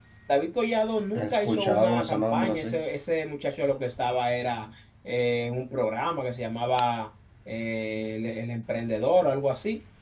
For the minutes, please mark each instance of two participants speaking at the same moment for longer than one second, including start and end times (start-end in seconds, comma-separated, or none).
1.2-2.8